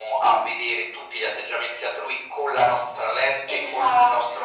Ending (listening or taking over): listening